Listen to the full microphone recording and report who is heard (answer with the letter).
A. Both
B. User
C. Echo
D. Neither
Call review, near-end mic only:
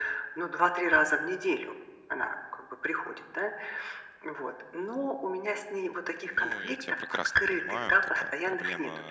A